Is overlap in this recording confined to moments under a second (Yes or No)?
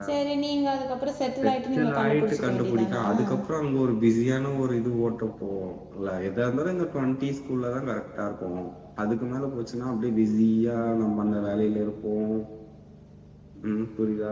No